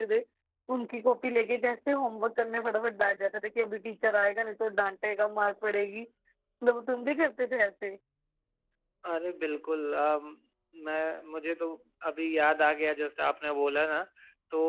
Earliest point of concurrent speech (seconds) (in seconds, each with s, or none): none